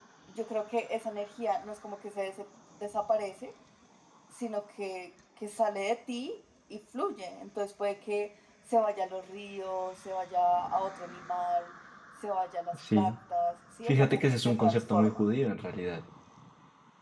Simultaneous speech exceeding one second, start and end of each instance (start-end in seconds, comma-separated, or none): 13.9-15.2